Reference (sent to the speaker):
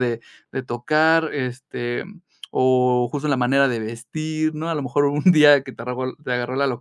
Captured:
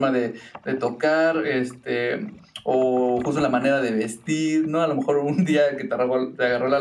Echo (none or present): present